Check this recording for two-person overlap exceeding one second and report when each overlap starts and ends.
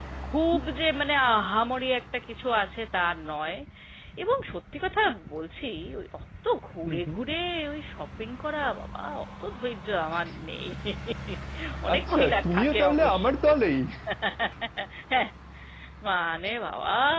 11.9-13.2

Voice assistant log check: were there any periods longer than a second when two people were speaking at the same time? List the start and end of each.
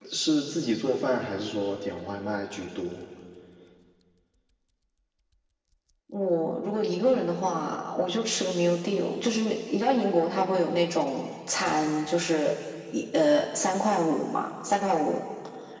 none

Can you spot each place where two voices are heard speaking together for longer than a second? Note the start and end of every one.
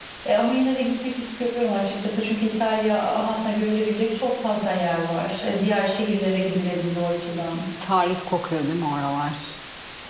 none

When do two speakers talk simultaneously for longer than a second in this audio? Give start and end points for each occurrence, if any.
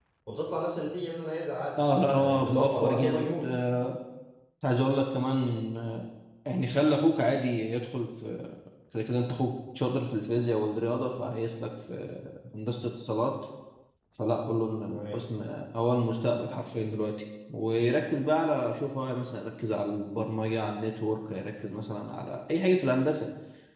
1.8-3.4

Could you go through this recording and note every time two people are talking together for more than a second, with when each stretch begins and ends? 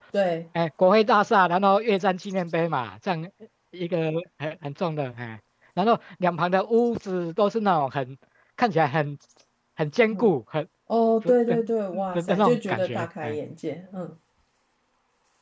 12.1-13.4

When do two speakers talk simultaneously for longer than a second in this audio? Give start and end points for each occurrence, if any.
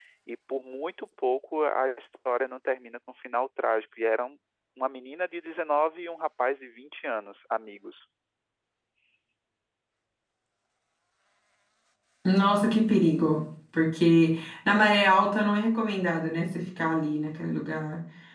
none

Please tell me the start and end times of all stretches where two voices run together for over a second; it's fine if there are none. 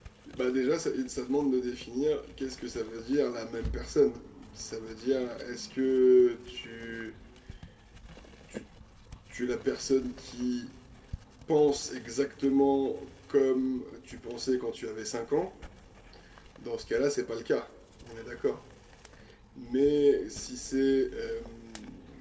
none

